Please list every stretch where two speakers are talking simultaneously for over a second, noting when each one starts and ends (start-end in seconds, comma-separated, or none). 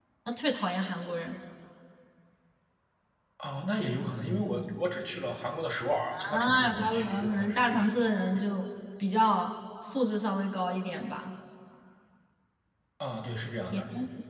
6.1-7.6